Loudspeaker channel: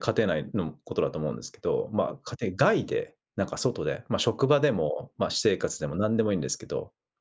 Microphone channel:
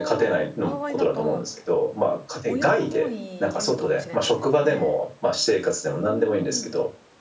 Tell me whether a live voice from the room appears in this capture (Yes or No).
Yes